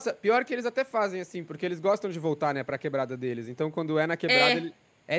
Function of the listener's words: listening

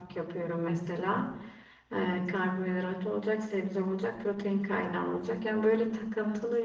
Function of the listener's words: listening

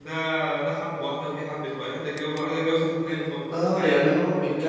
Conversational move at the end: taking over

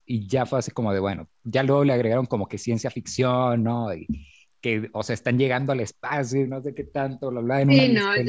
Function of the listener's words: taking over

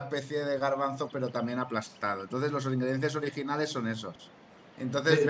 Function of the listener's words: listening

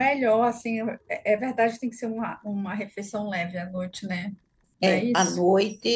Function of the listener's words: taking over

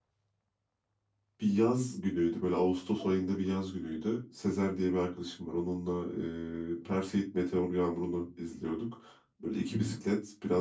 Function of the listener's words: listening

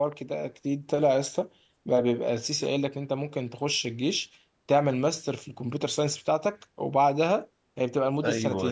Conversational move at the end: listening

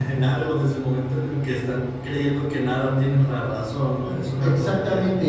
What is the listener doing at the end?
taking over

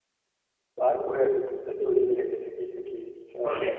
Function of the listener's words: taking over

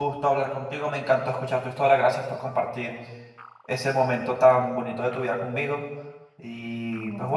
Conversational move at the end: listening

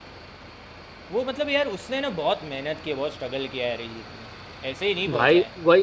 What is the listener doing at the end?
taking over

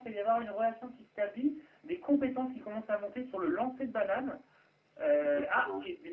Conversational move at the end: listening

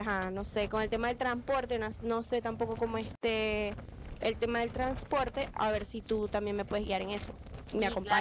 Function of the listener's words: taking over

